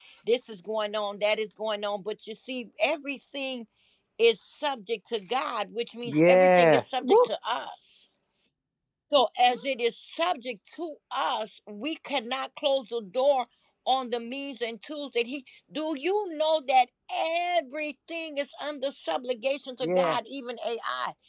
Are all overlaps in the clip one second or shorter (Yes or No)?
No